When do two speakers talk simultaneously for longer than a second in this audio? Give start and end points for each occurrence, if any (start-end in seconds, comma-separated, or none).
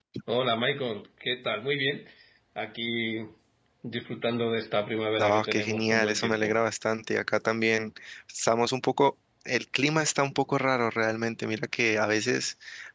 5.2-6.5